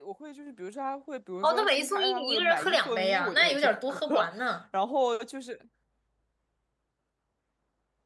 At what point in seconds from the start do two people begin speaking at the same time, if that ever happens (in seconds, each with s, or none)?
1.4 s